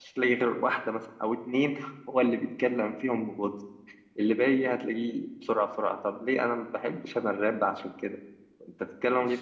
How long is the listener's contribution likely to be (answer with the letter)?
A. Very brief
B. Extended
B